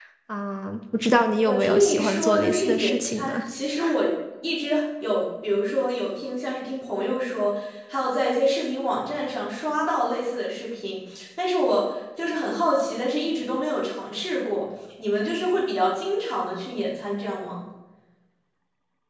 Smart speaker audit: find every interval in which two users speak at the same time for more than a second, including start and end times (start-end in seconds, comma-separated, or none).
1.5-3.4